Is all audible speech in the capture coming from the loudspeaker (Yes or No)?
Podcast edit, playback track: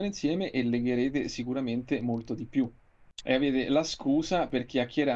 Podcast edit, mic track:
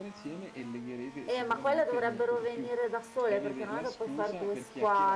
No